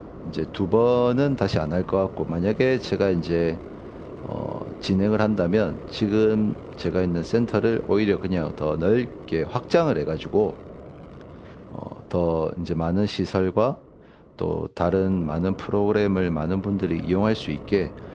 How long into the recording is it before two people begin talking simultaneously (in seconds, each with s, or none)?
none